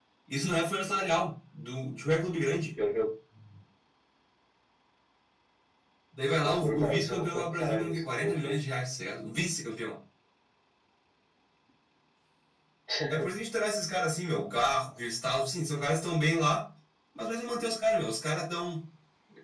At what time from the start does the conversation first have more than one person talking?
6 s

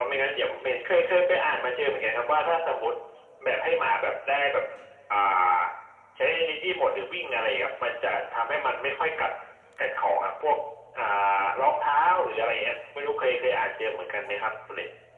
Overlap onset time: none

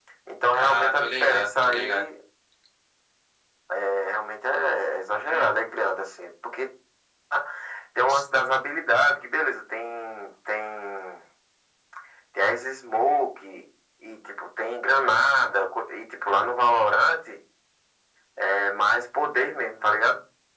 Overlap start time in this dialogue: 1 s

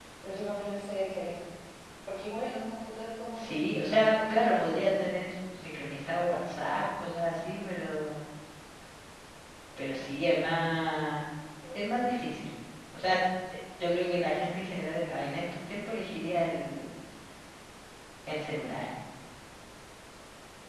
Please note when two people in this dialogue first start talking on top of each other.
3 s

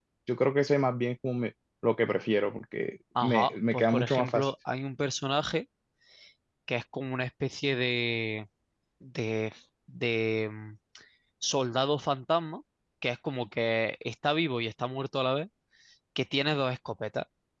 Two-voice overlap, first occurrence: 3 s

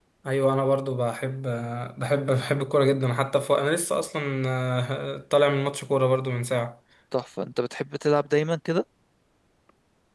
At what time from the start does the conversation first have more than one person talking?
none

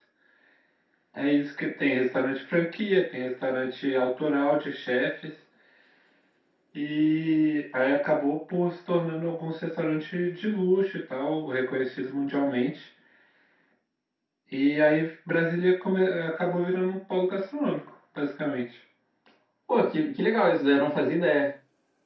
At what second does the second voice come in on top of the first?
none

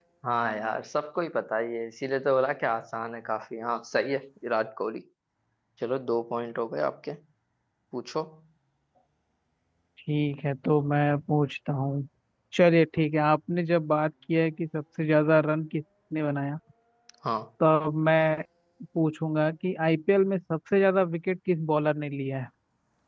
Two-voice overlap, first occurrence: none

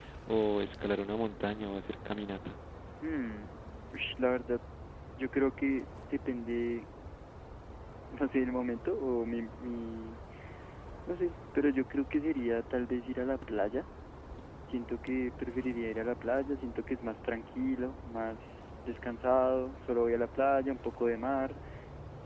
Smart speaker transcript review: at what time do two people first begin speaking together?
none

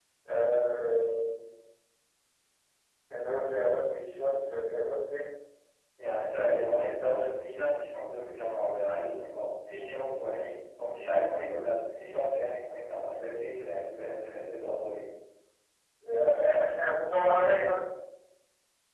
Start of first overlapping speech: none

